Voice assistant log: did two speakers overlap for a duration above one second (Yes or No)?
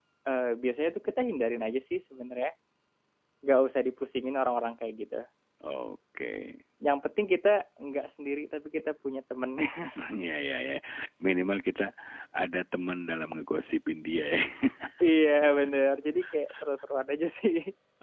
No